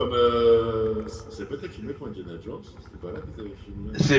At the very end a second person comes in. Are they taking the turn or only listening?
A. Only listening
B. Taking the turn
B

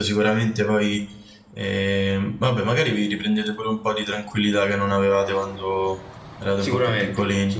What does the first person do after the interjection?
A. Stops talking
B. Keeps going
A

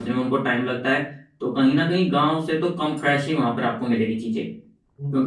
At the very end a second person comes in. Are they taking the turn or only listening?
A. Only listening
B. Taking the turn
B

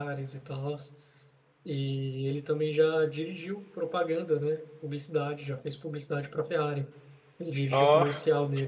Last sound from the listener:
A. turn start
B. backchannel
B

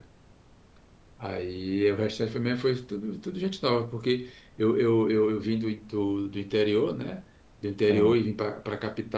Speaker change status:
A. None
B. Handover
A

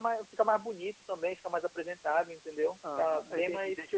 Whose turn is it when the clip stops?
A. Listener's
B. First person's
A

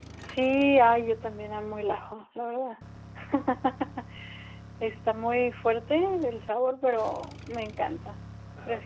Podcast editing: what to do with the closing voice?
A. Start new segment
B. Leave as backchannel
A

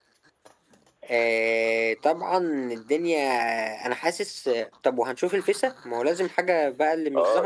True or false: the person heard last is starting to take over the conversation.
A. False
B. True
B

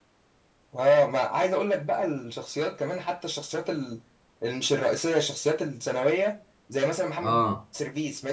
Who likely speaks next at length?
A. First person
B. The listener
A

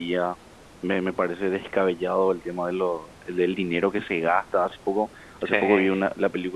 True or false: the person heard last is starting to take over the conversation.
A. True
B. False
B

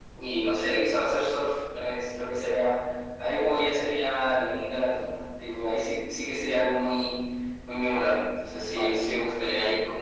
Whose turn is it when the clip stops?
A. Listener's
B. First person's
B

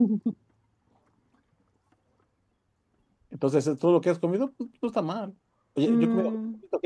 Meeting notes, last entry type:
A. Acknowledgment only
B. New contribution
A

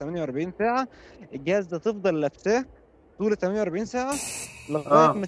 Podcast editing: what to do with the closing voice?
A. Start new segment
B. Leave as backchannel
B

